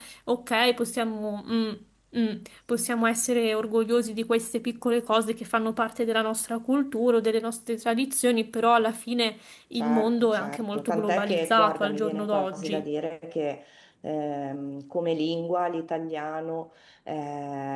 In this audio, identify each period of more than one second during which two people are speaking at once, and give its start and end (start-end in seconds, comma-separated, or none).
9.7-12.8